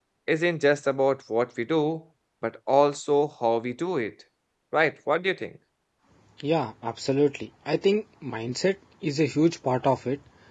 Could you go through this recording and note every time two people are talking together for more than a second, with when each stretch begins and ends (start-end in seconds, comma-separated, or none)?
none